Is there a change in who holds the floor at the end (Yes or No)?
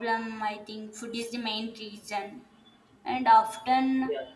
No